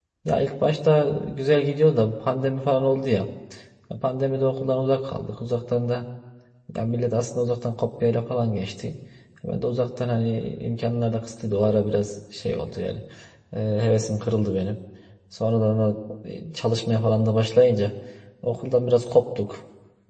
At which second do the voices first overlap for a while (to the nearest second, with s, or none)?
none